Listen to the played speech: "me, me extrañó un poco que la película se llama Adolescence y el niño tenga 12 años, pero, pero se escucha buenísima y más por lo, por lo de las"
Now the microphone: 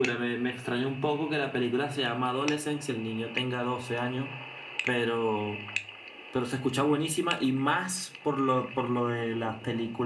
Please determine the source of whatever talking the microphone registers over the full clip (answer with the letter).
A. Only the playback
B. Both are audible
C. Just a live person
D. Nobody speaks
A